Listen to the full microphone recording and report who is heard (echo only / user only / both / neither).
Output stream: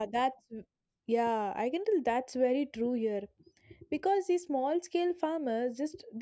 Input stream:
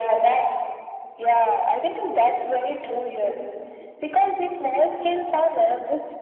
echo only